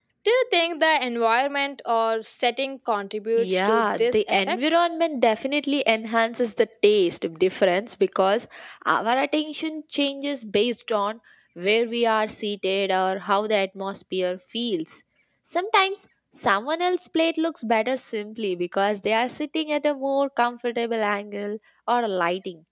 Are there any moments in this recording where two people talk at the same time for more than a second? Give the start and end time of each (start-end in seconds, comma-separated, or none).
3.4-4.6